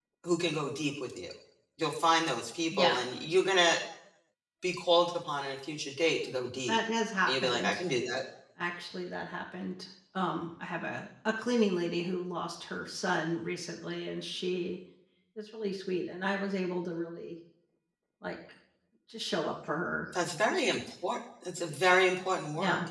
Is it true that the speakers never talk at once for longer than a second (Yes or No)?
Yes